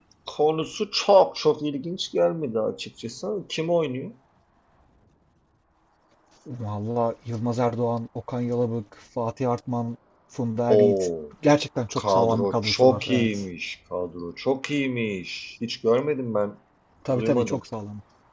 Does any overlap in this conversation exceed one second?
Yes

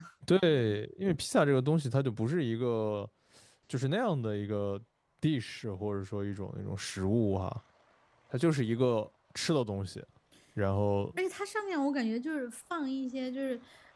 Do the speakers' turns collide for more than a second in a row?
No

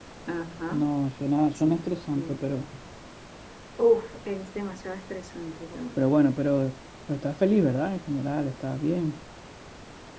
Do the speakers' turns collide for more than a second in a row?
No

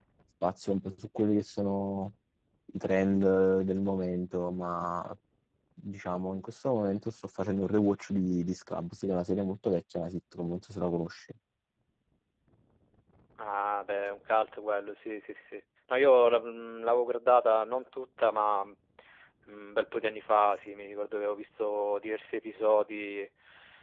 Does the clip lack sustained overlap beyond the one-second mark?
Yes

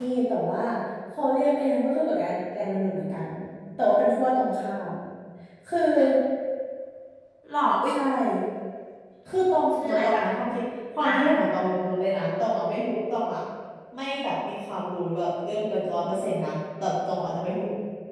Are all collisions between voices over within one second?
Yes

